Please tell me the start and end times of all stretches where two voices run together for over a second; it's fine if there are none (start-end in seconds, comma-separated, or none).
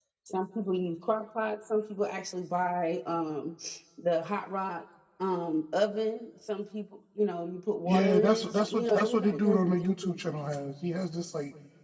7.8-10.2